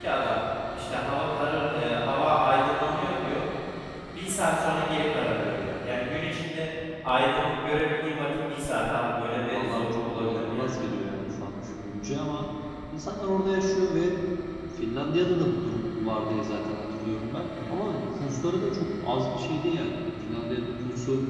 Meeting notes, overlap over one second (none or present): present